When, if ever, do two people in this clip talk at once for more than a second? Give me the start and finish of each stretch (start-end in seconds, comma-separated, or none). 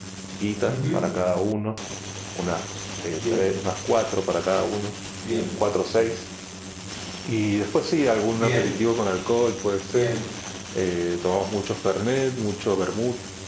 none